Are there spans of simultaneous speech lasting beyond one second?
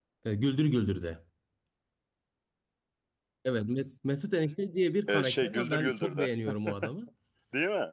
Yes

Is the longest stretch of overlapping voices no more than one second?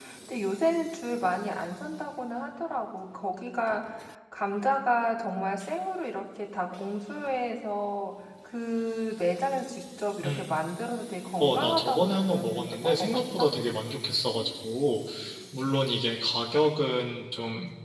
No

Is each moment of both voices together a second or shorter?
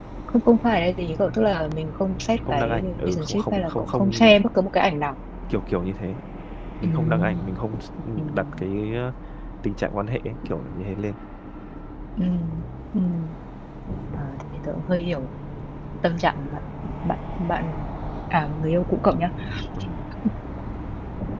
No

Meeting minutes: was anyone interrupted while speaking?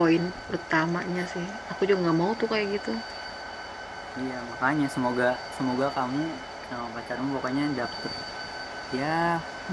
No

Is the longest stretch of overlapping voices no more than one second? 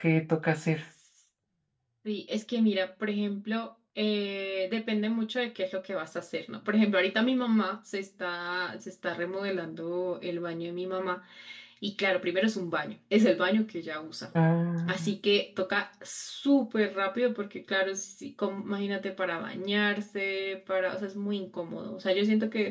Yes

